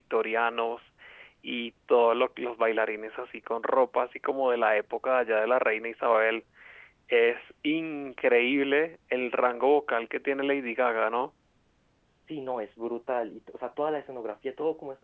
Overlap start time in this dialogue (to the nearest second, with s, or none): none